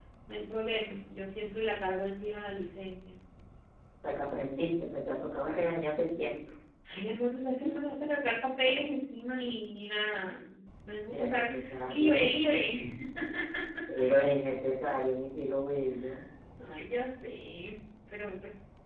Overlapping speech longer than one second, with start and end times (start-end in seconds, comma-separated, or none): 11.1-12.3